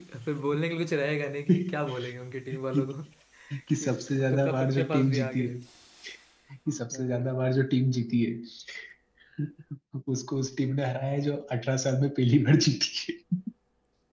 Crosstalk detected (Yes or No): Yes